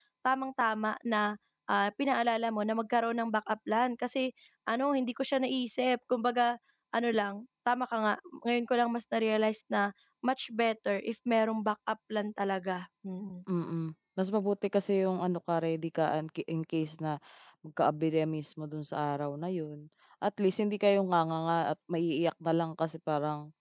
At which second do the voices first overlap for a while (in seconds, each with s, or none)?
none